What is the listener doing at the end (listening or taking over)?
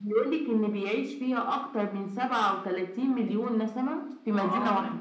taking over